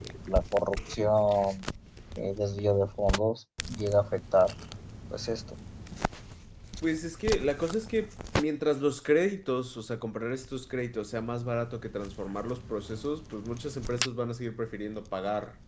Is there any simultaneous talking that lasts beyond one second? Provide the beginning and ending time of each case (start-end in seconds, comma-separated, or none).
none